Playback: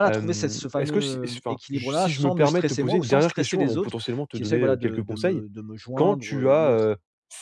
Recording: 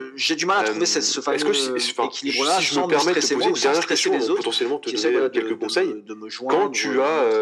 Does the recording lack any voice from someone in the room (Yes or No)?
Yes